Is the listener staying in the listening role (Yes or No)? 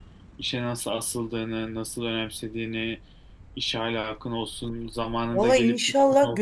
No